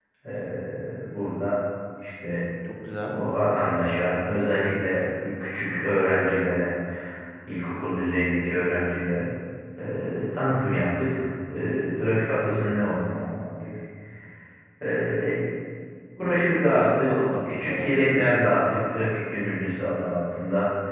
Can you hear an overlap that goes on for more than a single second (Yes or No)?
Yes